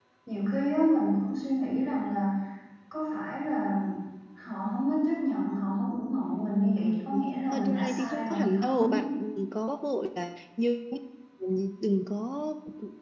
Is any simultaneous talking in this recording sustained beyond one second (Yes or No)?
Yes